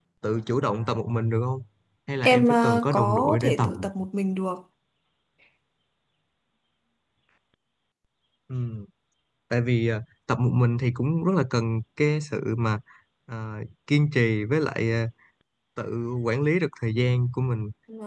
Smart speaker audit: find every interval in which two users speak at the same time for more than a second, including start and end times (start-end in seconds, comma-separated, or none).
2.2-3.7